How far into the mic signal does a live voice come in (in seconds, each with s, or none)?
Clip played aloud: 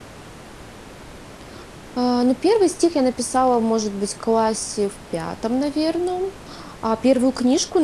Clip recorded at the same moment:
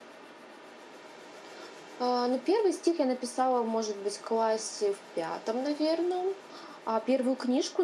none